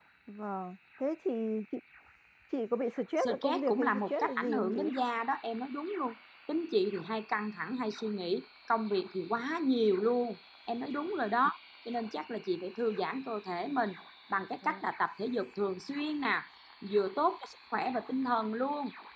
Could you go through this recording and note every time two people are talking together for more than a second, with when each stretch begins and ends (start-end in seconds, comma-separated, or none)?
3.2-4.8